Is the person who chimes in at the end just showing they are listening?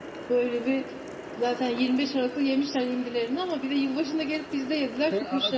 No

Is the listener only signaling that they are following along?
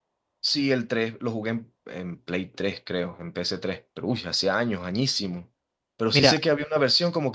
Yes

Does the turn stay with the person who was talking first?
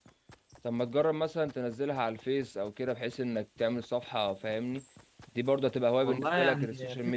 No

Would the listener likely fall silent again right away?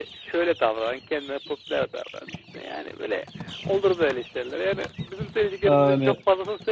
Yes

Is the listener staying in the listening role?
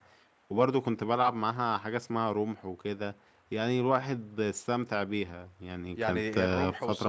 No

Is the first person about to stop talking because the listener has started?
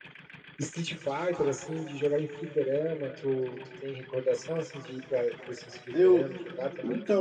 Yes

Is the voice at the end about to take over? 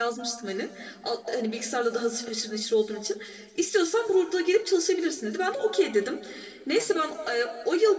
No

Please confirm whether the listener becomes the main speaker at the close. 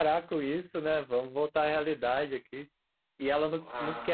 No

